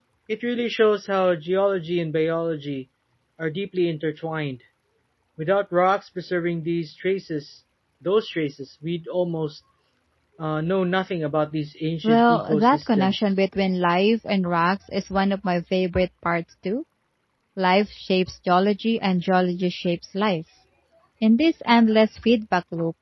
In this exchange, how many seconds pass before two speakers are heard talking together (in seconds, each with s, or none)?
12.0 s